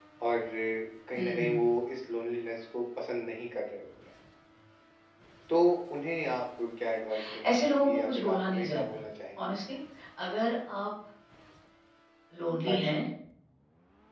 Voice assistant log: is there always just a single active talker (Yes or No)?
No